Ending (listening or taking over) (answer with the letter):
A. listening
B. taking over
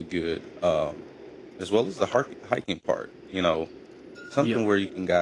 A